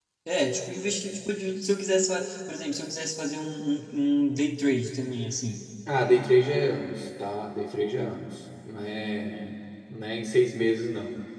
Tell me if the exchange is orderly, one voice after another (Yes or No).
Yes